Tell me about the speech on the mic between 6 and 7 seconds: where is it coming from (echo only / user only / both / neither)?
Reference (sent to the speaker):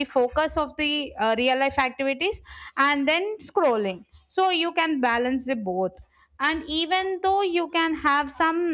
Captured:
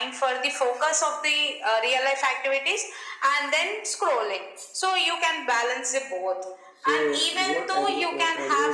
both